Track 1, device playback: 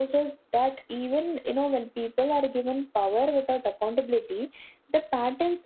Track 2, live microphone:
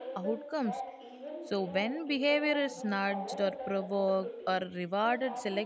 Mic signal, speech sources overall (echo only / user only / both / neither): both